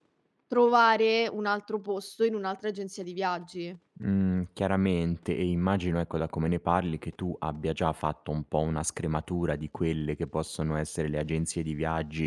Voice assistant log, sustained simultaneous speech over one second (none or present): none